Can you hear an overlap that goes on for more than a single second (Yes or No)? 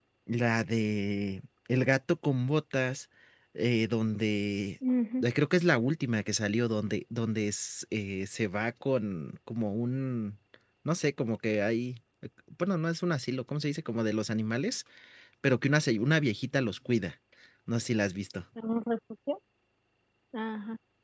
No